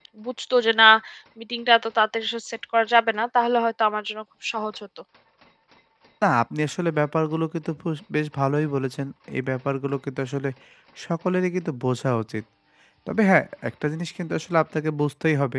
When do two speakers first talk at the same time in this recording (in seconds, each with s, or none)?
none